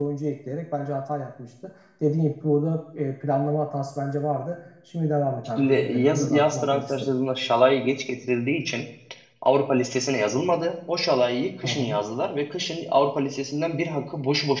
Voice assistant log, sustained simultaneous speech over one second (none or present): present